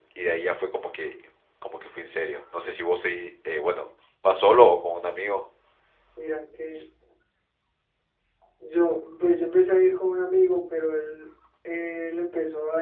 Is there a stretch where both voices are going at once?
No

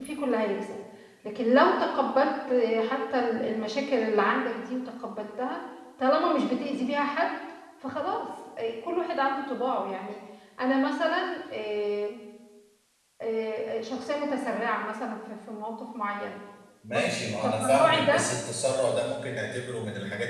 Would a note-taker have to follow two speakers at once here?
Yes, from 16.9 s

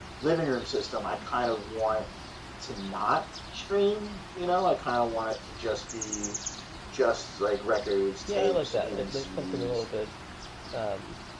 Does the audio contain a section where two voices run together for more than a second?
Yes, from 8.3 s

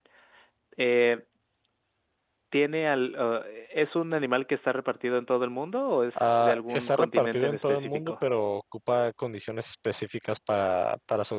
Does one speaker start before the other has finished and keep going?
Yes, from 6.2 s

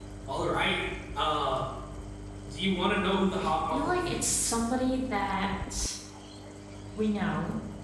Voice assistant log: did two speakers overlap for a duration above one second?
Yes, from 3.4 s

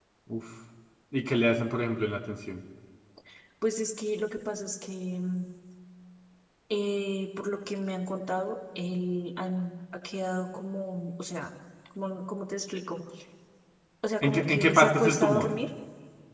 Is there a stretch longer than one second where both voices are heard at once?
Yes, from 14.2 s

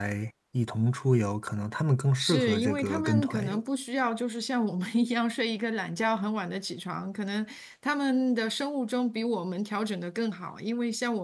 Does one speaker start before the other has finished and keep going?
Yes, from 2.2 s

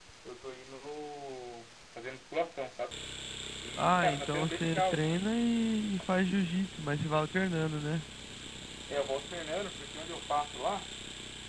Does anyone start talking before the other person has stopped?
Yes, from 3.8 s

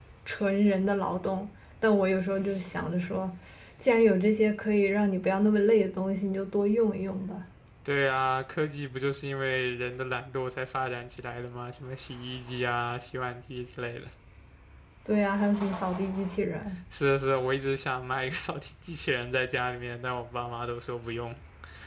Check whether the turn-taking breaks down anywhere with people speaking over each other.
No

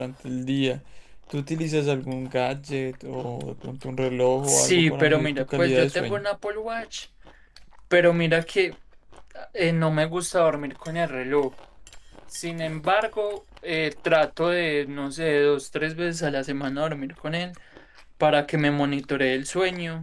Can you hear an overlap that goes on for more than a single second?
Yes, from 4.4 s

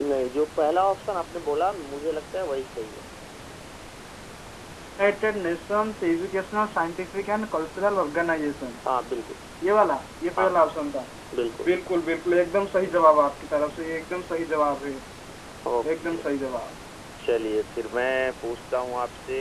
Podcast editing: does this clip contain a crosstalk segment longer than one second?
No

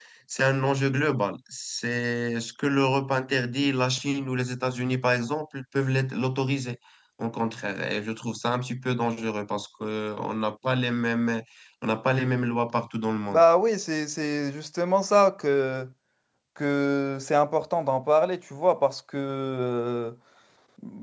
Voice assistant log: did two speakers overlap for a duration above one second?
No

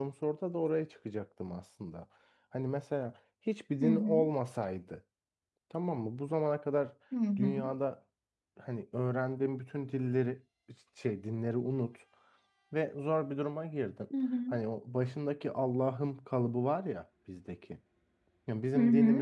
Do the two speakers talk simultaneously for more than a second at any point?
No

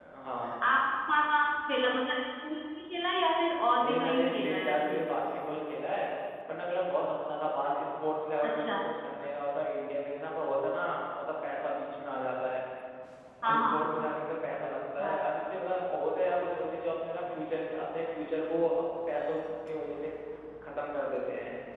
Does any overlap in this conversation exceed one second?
Yes, from 3.8 s

